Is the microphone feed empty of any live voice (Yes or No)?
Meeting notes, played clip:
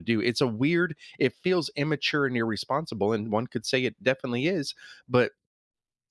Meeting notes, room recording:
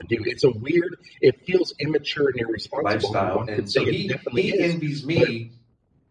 No